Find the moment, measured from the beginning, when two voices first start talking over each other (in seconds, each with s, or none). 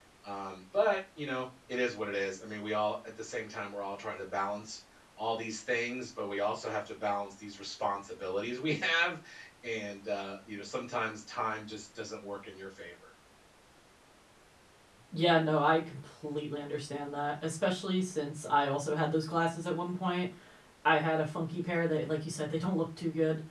none